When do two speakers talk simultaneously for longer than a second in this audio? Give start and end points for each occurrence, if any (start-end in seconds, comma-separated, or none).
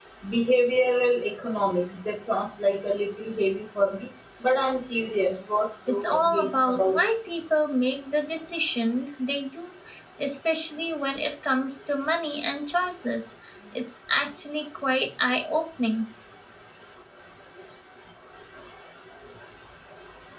5.9-7.1